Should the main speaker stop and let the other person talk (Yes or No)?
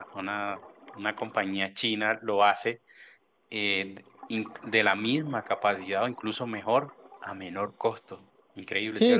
Yes